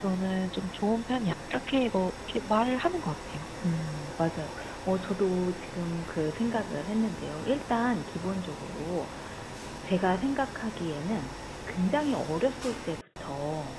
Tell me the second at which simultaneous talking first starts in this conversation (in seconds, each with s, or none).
none